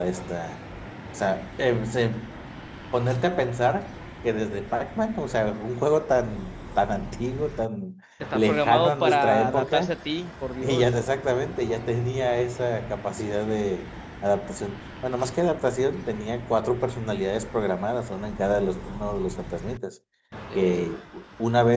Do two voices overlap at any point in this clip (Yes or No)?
Yes